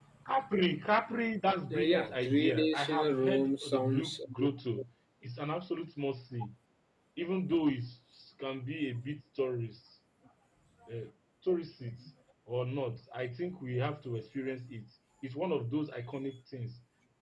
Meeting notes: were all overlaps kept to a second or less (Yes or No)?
No